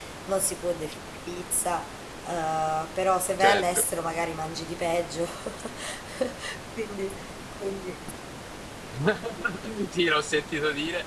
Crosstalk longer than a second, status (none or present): none